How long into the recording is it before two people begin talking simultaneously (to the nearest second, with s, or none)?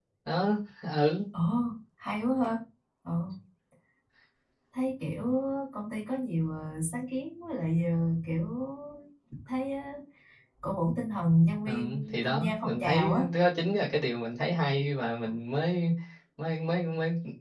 12 s